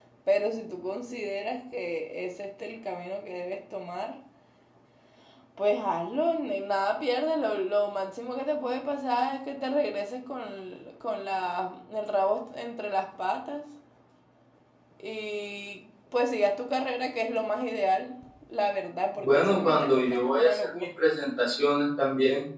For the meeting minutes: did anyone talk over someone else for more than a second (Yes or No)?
Yes